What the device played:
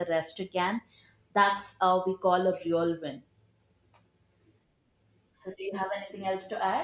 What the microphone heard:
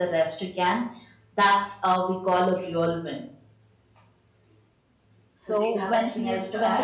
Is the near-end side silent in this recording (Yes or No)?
No